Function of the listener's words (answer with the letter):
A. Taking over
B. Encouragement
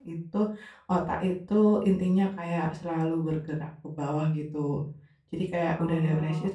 B